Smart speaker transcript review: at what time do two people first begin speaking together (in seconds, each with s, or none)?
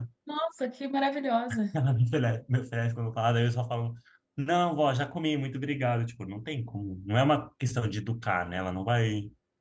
none